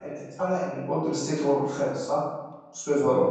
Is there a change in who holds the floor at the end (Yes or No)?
Yes